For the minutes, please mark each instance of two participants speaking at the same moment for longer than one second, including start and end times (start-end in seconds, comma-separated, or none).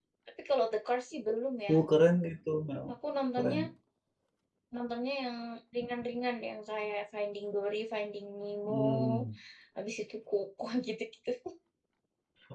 none